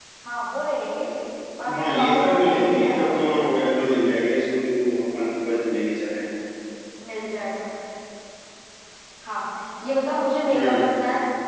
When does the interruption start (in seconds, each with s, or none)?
1.8 s